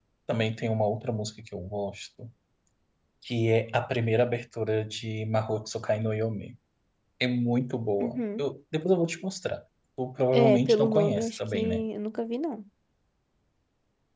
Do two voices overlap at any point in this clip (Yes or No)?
Yes